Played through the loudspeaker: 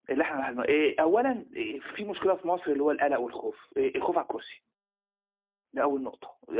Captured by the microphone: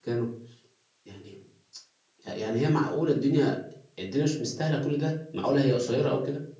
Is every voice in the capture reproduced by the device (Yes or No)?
No